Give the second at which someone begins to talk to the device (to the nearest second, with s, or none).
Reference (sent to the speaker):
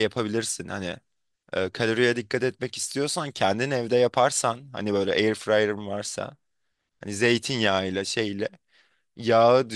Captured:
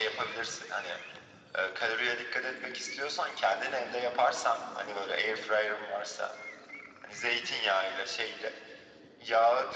none